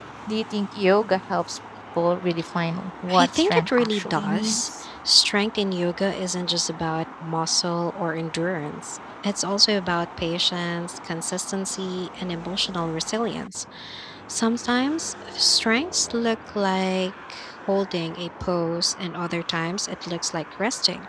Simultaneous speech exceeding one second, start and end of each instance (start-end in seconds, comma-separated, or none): 3.2-4.8